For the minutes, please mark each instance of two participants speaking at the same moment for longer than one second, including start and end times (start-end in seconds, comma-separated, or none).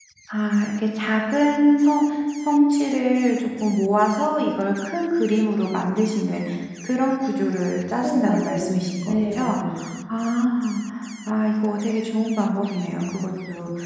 8.0-9.6